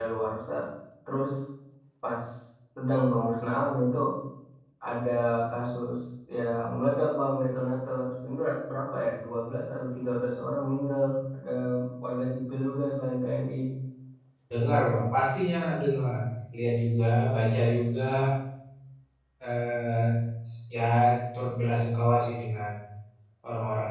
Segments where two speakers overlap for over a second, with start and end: none

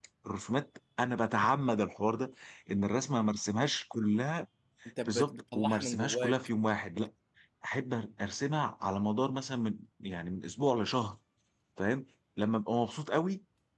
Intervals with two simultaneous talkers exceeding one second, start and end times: 5.0-6.3

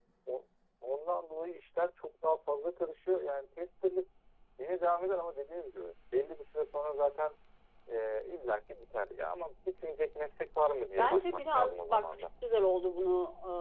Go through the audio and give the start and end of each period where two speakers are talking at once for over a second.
11.0-12.2

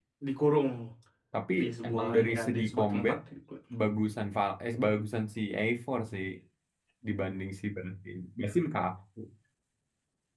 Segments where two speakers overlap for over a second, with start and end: 1.6-3.2

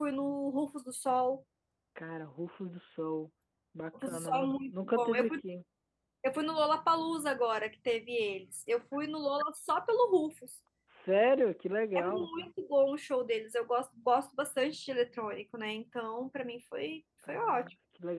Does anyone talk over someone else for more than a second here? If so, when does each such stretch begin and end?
4.0-5.3

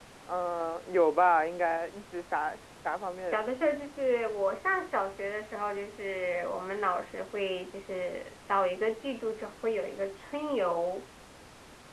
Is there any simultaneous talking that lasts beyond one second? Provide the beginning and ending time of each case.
none

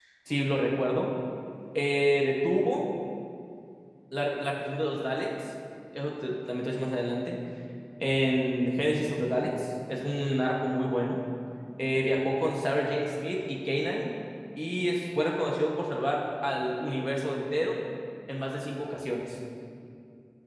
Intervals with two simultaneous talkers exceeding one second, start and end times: none

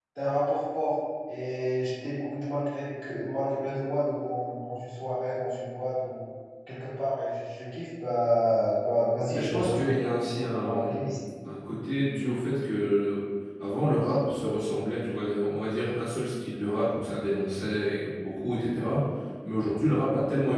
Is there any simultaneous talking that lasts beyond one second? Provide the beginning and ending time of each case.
9.3-11.2

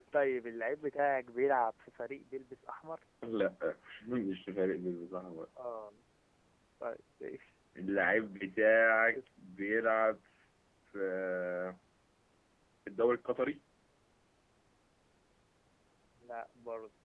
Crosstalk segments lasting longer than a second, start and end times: none

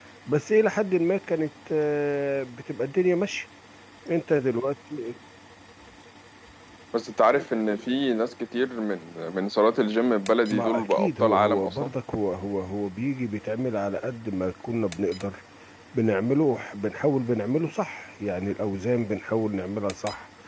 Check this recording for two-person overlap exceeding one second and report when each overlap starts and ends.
10.5-11.9

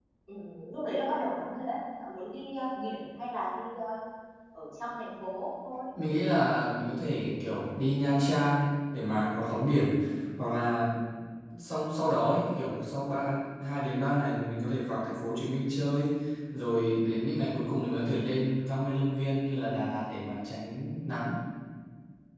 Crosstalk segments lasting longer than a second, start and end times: none

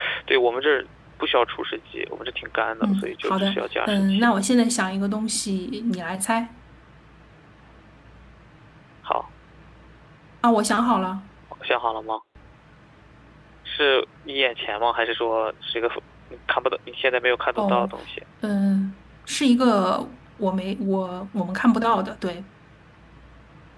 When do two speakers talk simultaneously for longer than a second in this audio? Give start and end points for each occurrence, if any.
2.8-4.2

